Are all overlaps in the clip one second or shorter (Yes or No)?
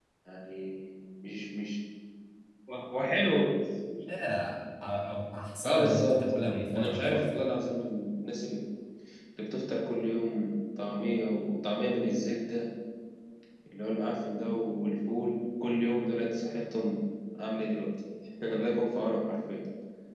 No